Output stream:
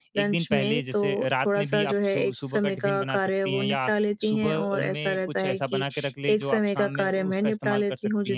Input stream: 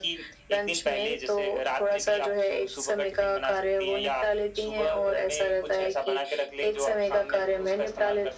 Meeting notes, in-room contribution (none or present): none